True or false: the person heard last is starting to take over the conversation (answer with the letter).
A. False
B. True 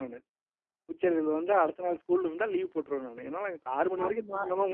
B